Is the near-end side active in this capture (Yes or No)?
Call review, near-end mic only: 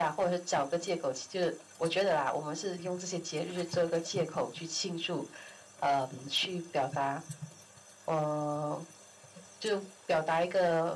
No